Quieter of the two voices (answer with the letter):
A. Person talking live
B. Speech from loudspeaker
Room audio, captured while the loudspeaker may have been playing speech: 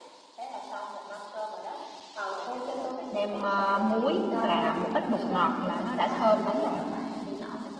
B